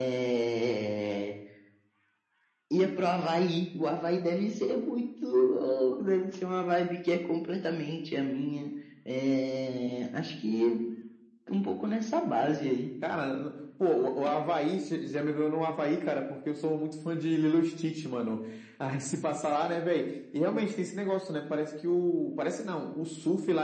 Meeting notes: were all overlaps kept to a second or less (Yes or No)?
Yes